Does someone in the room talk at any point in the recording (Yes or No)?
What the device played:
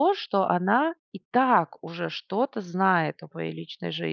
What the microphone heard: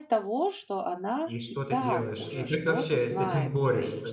Yes